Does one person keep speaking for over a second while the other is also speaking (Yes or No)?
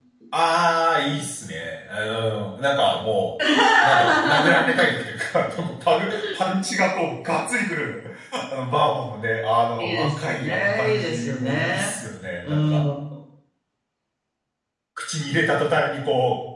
Yes